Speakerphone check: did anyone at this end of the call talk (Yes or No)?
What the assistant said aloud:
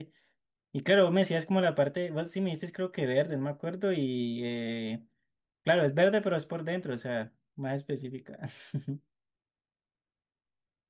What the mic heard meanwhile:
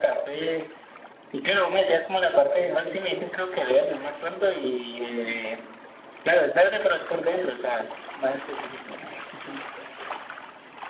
No